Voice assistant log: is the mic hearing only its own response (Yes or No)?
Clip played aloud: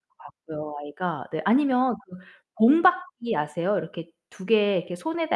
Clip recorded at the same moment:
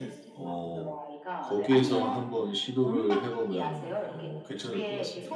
No